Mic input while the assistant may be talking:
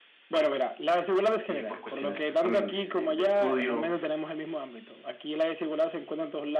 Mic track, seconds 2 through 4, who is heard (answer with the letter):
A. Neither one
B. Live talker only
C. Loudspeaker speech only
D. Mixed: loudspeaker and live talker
D